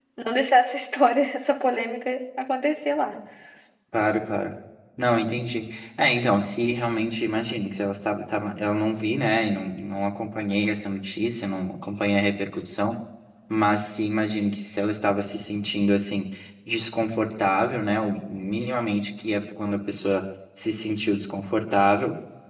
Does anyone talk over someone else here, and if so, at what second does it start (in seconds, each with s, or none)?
none